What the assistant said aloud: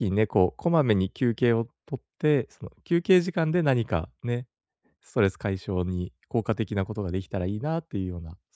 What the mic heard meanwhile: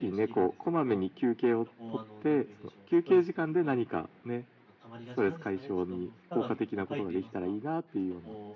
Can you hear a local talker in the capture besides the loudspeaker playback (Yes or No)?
Yes